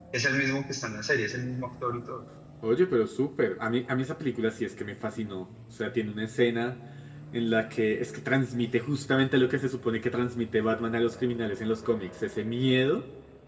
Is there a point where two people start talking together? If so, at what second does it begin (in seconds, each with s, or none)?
none